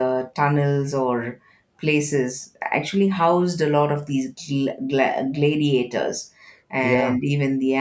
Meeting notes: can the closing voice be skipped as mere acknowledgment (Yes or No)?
Yes